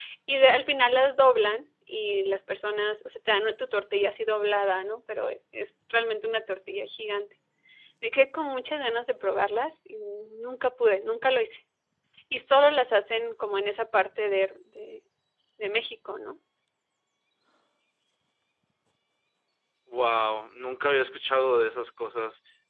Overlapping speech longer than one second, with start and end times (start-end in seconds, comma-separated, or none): none